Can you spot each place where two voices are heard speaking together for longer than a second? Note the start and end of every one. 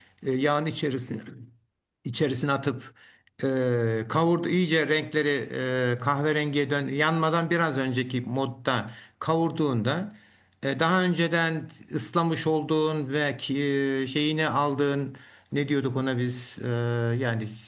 none

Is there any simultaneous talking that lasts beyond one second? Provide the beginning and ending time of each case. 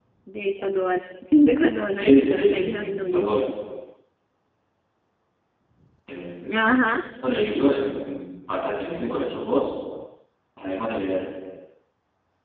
1.9-3.4

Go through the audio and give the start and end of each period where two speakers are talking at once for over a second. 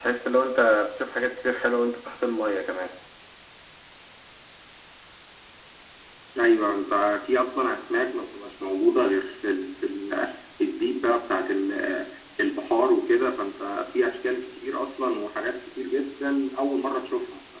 none

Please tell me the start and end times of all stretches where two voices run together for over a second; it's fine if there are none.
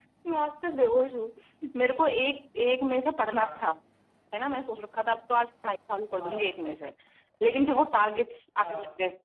none

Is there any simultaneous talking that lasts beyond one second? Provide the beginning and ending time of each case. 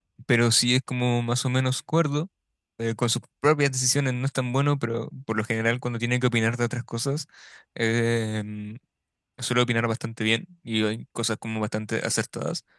none

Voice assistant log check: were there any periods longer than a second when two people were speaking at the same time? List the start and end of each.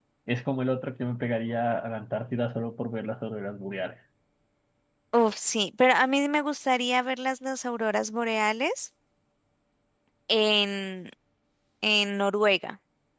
none

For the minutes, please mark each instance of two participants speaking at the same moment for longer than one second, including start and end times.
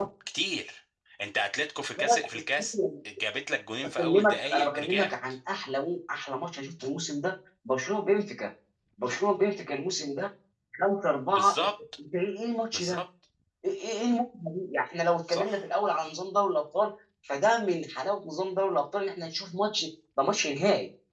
3.8-5.2

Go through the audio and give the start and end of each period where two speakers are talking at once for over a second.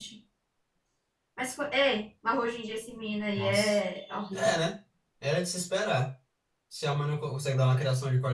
none

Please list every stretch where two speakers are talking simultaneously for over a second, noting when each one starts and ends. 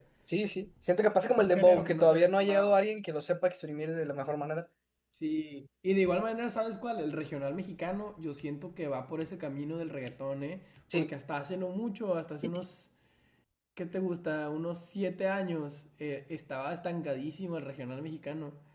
1.3-2.8

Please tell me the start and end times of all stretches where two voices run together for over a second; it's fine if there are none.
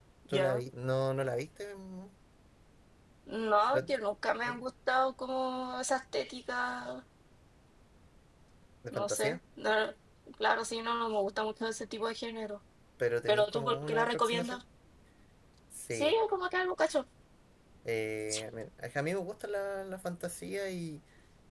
13.3-14.6

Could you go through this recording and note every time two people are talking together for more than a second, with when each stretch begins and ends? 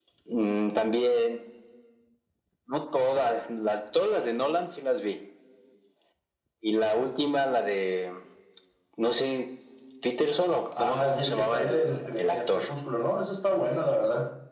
10.8-12.6

